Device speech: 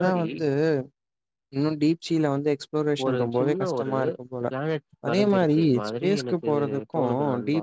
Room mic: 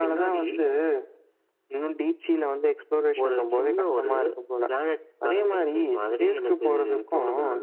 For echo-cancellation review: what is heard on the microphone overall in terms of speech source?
echo only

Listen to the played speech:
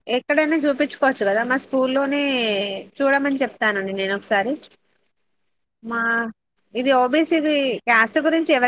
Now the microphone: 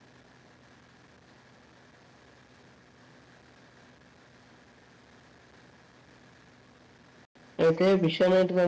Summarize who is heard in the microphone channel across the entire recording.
user only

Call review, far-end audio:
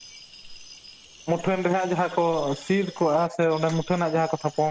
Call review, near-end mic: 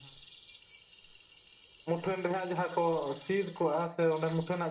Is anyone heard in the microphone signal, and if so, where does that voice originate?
echo only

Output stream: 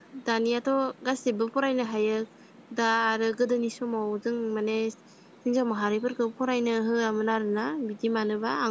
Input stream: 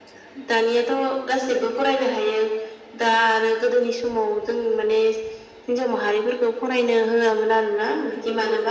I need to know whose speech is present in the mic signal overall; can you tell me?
echo only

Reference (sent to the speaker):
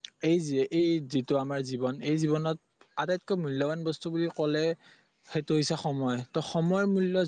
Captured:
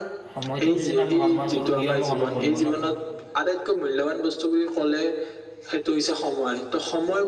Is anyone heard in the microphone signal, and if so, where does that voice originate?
both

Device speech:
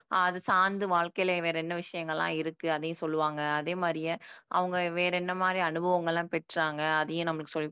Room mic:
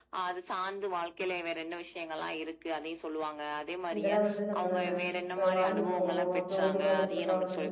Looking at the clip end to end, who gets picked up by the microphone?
both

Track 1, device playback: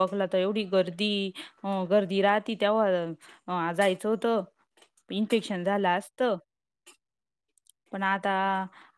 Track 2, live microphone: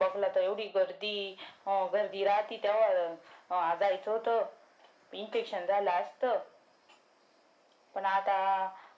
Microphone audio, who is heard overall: echo only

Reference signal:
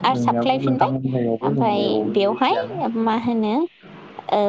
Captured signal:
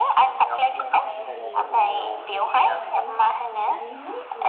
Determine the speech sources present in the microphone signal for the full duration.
both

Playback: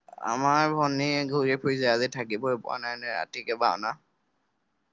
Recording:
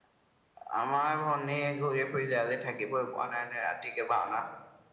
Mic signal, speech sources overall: echo only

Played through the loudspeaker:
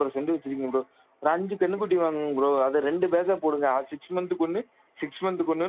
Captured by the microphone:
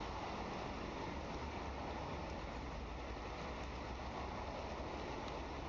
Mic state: neither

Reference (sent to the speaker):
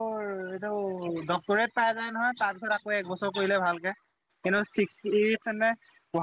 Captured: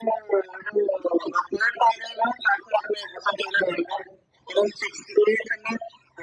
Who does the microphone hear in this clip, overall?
echo only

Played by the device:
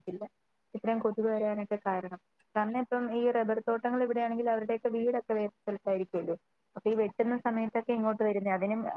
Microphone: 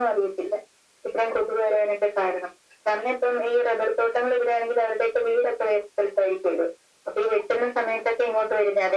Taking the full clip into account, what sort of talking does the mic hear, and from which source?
echo only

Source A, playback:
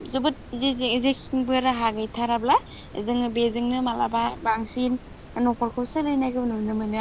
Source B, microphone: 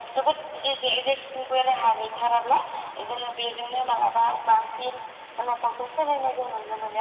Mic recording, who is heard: echo only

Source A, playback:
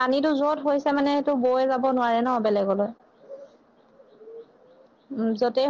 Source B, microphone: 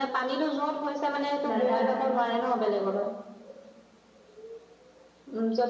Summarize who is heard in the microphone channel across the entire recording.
both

